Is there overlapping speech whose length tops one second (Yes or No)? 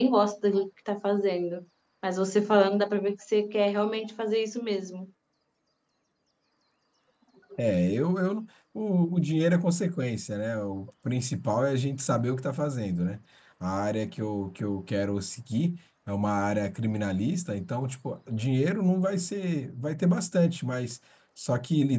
No